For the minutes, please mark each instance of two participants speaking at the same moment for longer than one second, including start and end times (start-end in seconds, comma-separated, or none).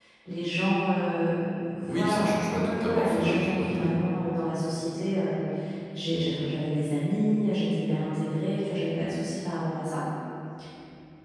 1.9-4.0